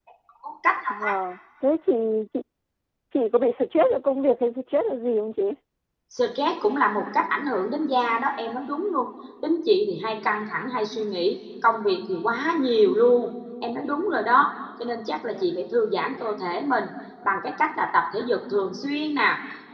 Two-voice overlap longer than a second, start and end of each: none

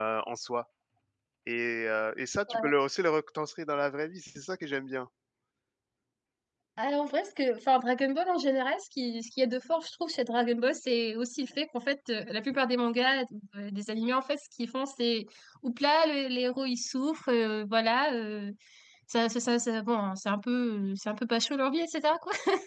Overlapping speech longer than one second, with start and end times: none

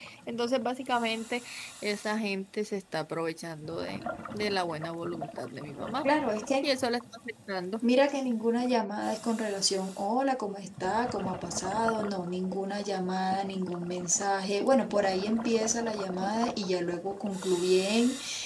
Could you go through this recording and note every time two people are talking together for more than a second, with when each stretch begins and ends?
none

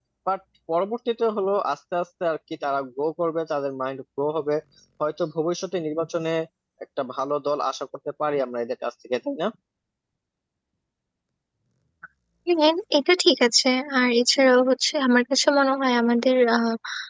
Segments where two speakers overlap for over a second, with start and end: none

